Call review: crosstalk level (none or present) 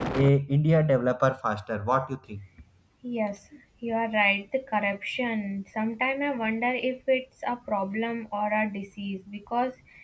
none